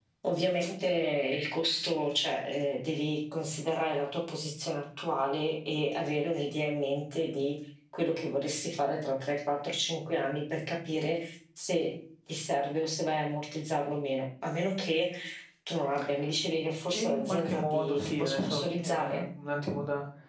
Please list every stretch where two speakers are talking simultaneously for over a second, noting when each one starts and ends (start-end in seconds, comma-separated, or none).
16.9-19.2